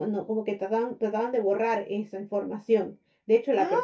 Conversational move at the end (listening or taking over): listening